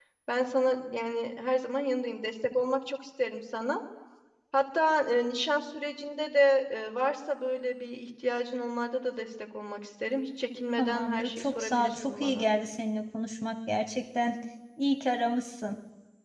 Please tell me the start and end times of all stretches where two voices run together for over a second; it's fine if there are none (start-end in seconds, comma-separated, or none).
10.8-12.5